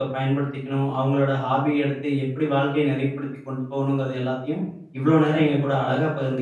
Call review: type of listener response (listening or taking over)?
listening